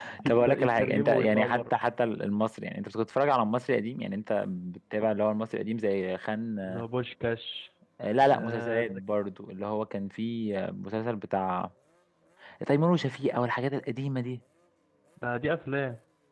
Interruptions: present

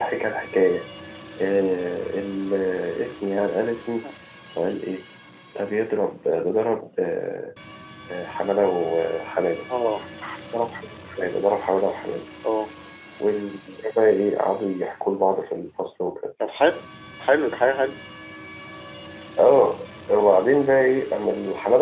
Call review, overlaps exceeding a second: none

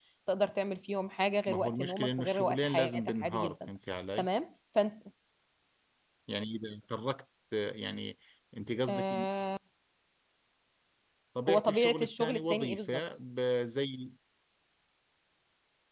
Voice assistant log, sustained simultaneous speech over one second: present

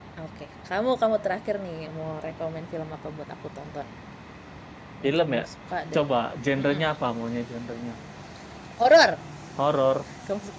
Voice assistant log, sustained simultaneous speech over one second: none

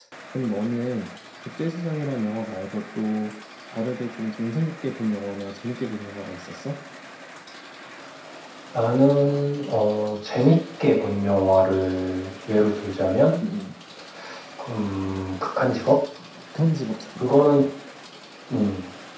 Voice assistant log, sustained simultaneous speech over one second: none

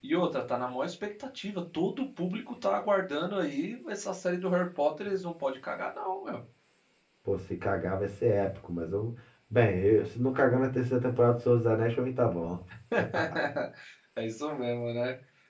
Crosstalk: none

